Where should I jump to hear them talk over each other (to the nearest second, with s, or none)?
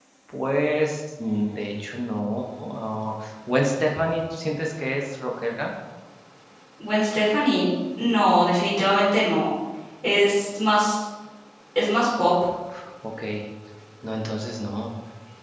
none